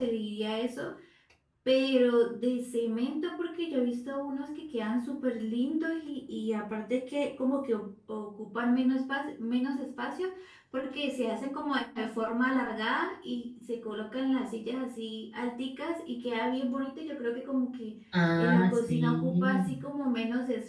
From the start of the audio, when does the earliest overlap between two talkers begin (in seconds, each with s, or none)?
18.4 s